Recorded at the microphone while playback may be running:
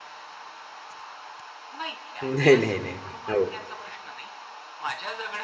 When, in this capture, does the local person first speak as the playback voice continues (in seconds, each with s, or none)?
2.2 s